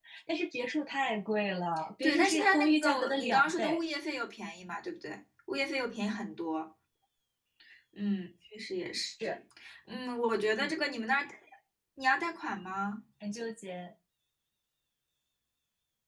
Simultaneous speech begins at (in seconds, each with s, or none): 2.0 s